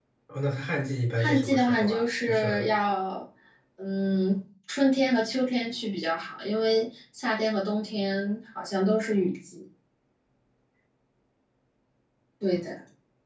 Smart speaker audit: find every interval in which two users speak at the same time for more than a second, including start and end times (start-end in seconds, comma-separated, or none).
1.2-2.6